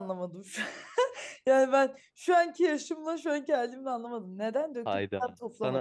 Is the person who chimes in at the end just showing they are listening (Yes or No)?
No